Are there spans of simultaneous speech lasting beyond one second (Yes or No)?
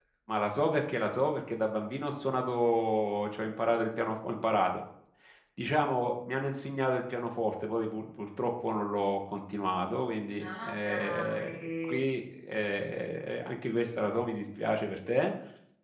Yes